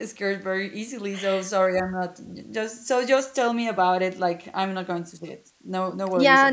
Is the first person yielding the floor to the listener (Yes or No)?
Yes